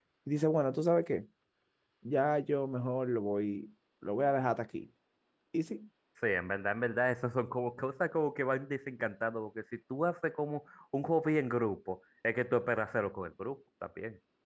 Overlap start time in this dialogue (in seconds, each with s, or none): none